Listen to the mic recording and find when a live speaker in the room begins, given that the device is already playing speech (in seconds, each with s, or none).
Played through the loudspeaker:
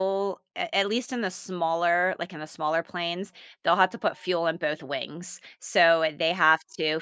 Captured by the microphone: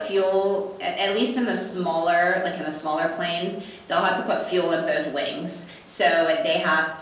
none